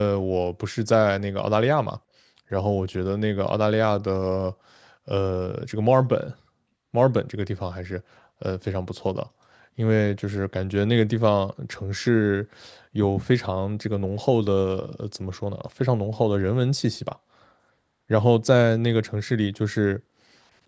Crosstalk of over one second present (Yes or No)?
No